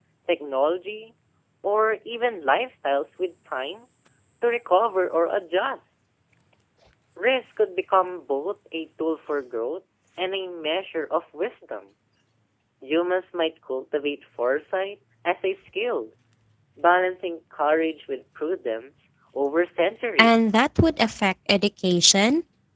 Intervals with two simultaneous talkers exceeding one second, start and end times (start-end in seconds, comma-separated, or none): none